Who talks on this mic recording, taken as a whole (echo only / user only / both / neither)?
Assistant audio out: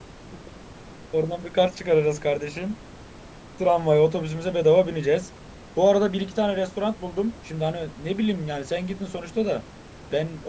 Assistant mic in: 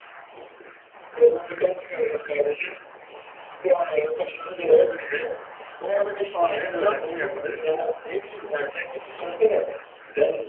both